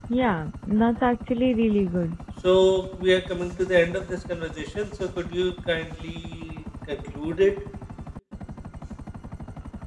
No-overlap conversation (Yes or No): Yes